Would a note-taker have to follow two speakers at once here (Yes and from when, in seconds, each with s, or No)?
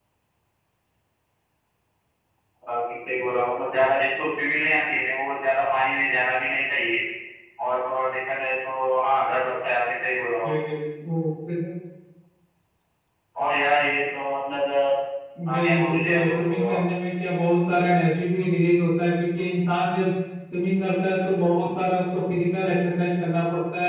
Yes, from 15.5 s